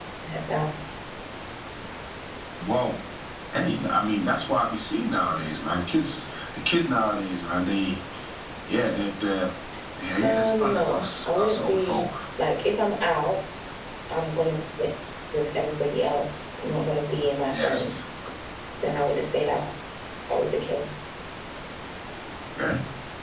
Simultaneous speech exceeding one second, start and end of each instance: 10.2-12.1

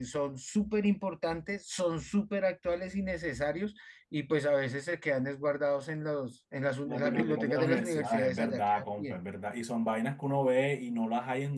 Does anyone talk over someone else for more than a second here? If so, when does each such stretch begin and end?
6.9-9.2

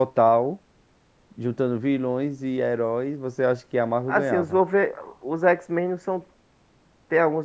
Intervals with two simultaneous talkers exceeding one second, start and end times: none

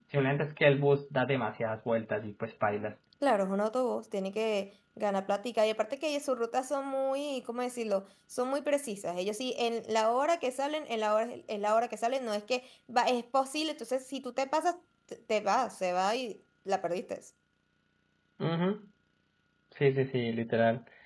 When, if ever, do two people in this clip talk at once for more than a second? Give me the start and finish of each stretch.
none

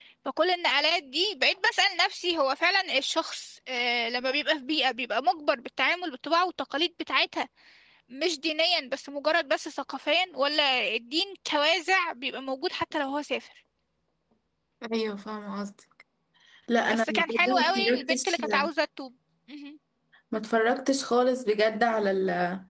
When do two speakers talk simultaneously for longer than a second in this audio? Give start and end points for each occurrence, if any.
16.9-18.4

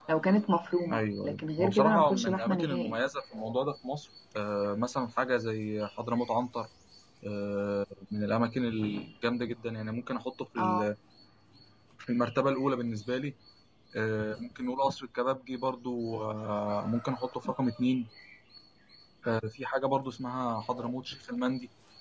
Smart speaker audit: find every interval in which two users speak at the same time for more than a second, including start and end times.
0.9-3.0

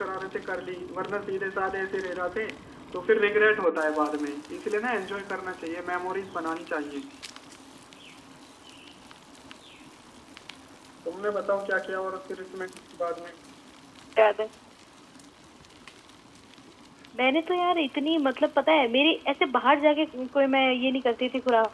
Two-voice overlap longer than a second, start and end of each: none

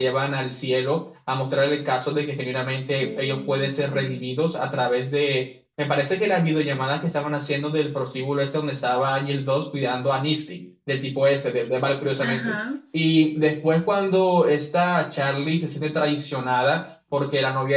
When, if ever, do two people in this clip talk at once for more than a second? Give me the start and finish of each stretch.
3.0-4.2

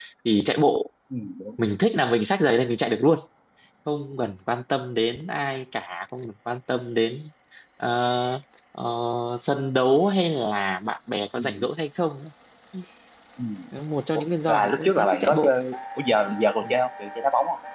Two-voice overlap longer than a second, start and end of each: 14.1-15.5

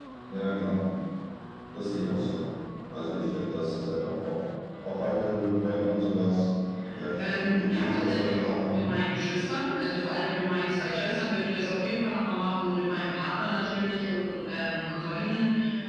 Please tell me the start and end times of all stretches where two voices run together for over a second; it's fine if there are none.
7.2-8.8

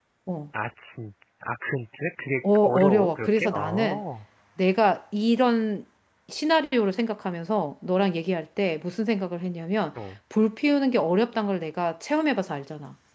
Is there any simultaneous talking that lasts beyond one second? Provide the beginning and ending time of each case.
2.6-4.0

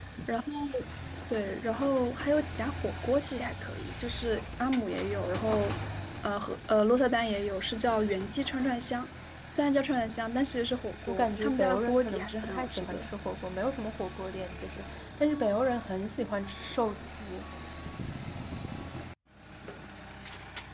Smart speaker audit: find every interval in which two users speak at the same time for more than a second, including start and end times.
11.0-13.1

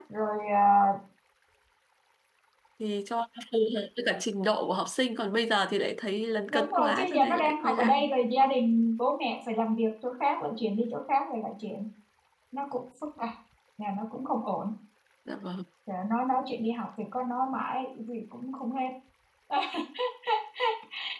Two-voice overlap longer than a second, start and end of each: 6.5-8.0

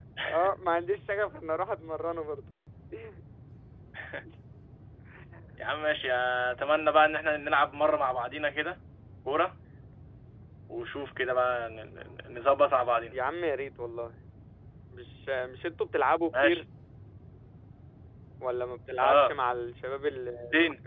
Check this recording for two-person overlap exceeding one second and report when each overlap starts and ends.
none

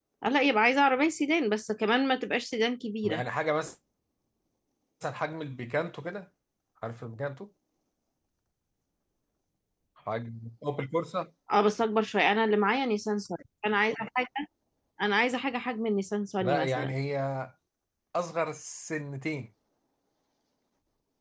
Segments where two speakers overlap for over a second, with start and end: none

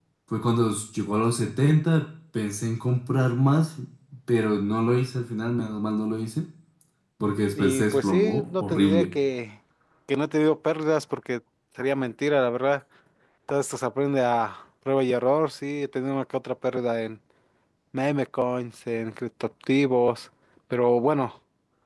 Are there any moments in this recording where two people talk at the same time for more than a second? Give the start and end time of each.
7.6-9.1

